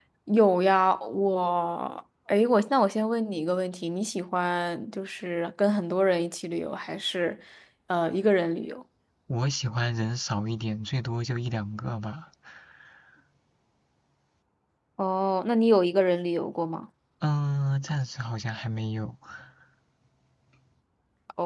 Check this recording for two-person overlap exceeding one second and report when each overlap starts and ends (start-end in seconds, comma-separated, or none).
none